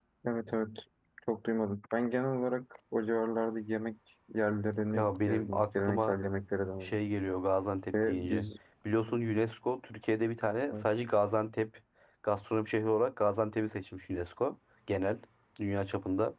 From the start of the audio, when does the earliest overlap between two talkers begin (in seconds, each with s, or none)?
4.9 s